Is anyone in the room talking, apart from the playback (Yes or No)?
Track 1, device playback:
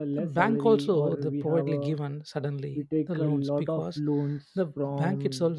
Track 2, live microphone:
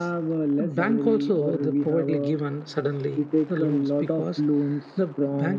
No